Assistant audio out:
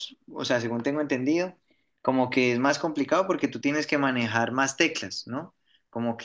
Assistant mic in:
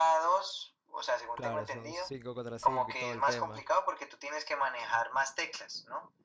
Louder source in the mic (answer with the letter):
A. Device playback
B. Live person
A